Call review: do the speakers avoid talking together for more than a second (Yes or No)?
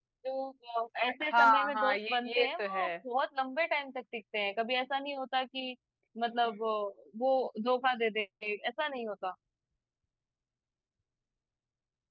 No